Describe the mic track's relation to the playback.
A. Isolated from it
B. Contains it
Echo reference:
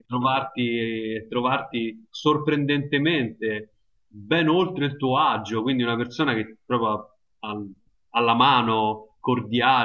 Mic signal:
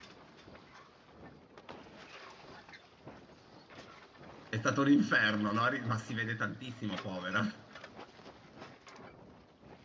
A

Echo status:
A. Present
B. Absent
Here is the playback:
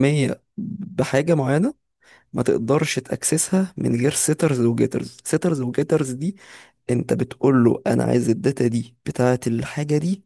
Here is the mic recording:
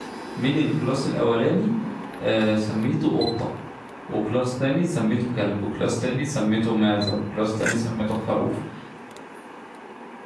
B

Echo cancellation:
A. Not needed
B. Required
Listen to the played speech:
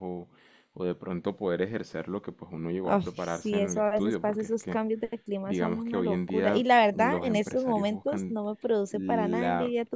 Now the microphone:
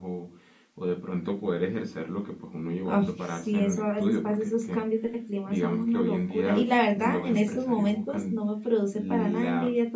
B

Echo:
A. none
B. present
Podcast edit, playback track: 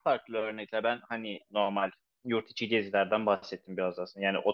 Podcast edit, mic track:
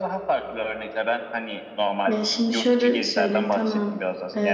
B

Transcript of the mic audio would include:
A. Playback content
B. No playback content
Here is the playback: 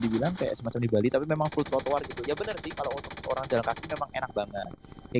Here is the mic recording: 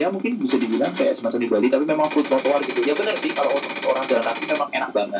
A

